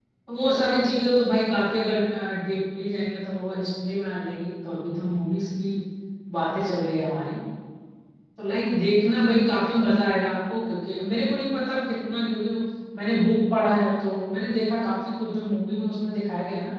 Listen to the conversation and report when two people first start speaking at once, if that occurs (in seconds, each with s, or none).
none